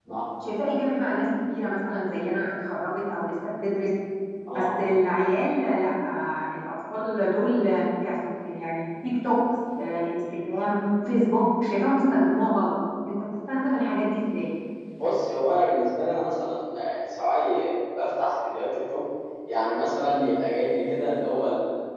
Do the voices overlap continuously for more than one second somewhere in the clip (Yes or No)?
No